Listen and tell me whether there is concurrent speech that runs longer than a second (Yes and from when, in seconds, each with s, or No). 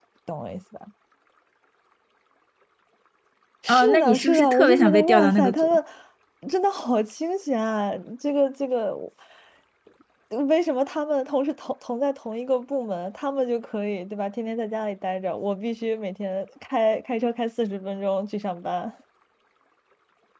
Yes, from 3.7 s